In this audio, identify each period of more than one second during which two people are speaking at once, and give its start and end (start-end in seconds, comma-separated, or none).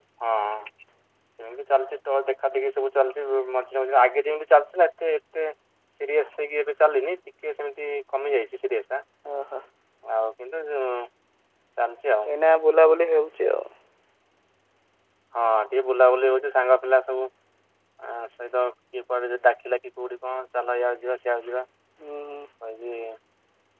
none